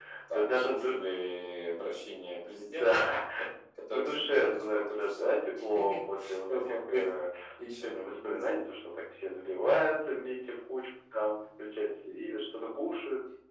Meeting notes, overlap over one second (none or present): present